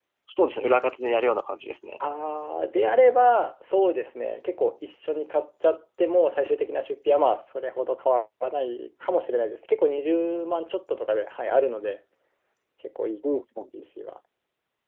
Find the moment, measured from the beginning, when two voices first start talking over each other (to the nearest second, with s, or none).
none